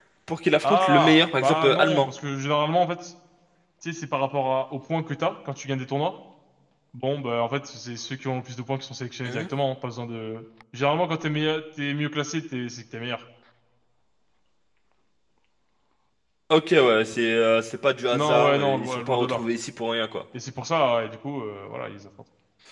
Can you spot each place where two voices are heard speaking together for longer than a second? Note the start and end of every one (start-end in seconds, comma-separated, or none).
0.6-2.1, 18.1-19.4